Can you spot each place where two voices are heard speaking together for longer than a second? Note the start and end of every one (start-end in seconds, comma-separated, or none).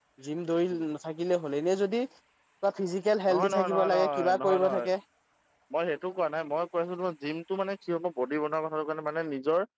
3.3-4.9